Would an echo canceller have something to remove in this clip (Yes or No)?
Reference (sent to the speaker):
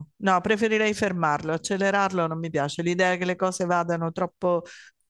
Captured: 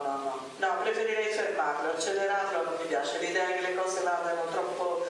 Yes